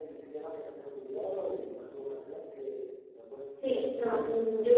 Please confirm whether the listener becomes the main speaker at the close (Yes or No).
Yes